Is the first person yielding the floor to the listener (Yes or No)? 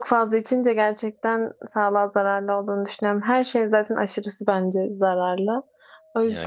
No